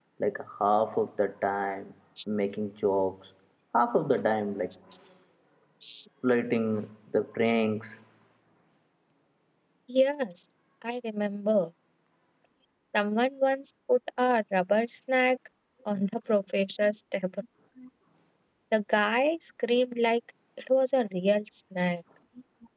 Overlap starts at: none

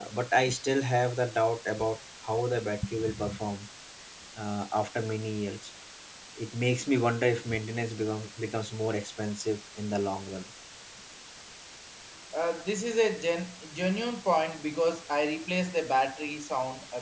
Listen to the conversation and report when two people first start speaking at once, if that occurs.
none

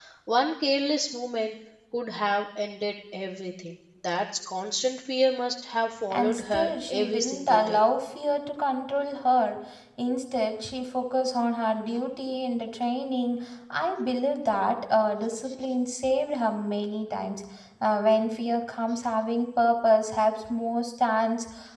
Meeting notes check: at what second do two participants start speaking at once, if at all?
6.1 s

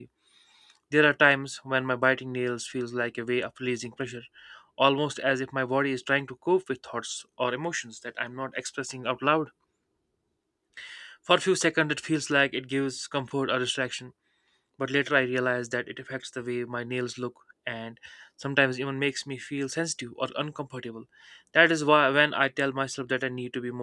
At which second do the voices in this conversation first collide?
none

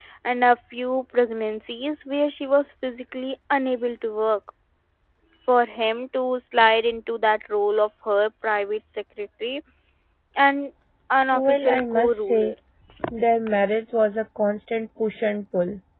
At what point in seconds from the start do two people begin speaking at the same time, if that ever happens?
11.3 s

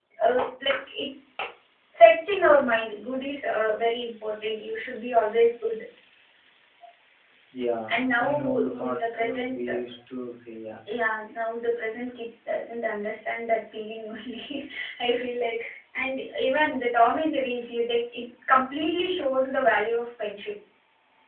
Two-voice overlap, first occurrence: 7.9 s

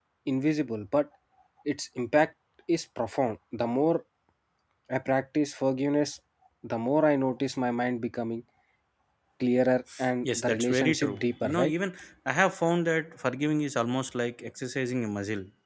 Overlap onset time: 10.4 s

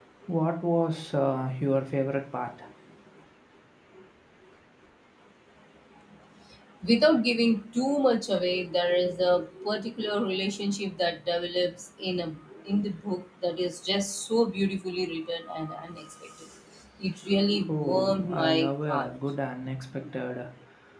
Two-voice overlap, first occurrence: 17.7 s

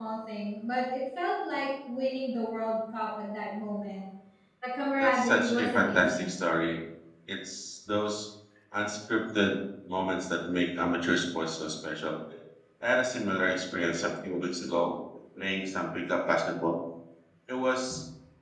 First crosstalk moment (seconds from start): 5.0 s

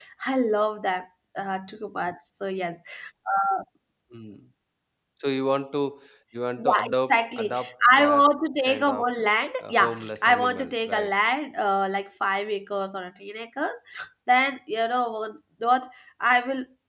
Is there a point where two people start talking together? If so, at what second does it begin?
6.6 s

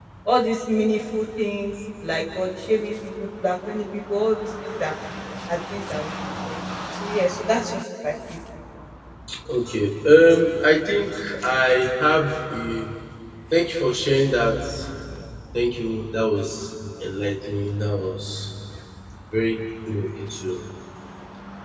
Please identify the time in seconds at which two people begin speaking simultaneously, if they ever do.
none

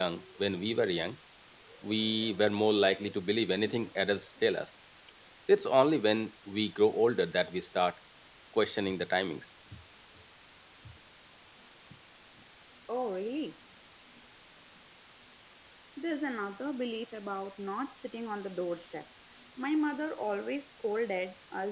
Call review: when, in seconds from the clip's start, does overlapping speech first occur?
none

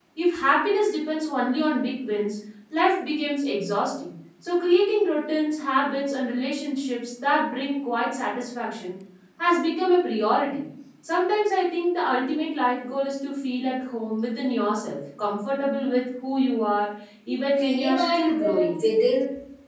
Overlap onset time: 17.6 s

